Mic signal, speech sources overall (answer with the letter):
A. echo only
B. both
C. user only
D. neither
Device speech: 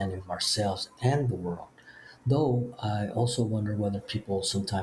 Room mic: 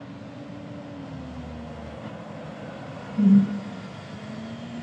C